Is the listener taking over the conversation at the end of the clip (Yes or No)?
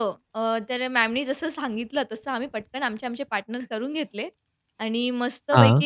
No